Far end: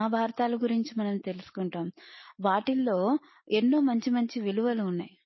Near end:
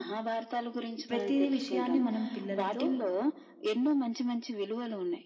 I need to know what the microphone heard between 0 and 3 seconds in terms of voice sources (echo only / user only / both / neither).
both